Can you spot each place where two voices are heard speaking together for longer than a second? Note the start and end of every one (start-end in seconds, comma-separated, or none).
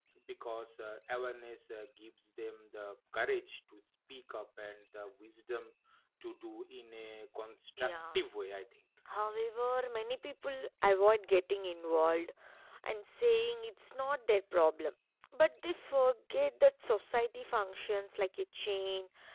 none